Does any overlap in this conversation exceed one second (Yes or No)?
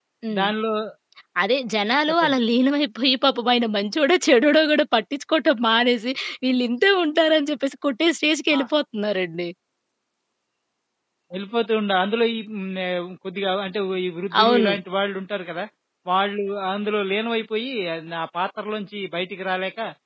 No